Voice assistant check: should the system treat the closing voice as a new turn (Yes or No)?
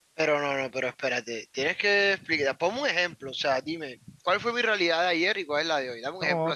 Yes